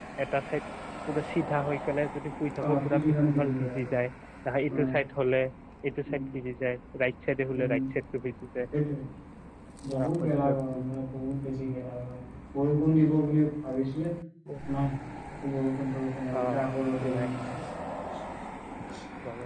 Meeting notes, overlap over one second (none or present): present